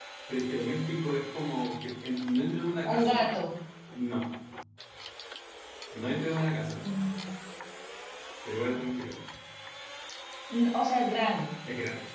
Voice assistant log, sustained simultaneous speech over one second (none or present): none